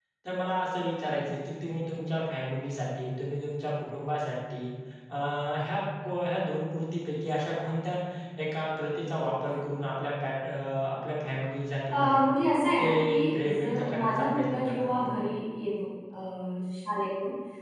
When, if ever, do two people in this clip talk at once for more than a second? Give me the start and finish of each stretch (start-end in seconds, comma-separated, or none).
12.8-15.2